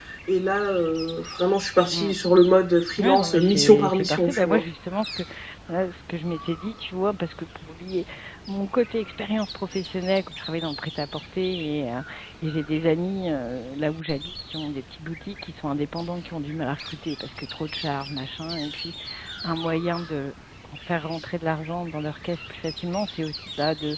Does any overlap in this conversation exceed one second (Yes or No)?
Yes